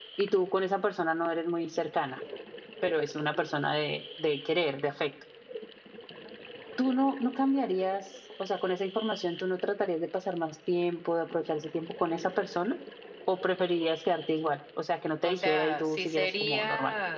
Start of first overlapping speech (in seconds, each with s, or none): 15.2 s